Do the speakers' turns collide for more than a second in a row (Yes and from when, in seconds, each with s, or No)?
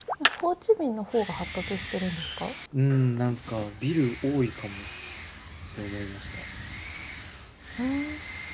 No